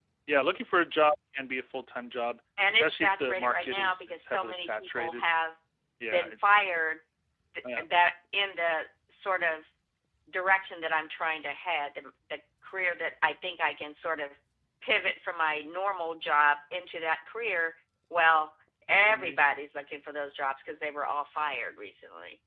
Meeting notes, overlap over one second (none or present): present